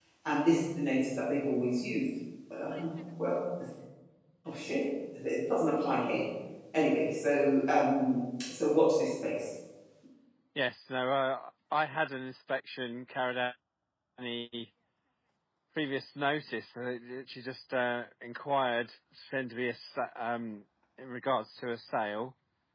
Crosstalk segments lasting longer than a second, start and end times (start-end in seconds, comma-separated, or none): none